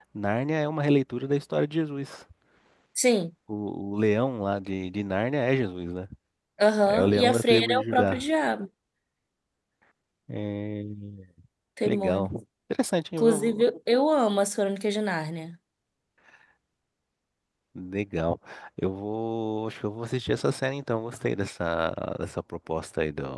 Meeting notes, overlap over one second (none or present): present